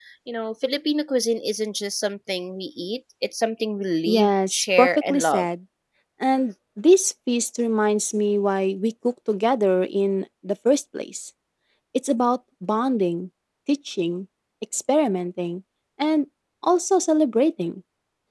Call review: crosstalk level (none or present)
present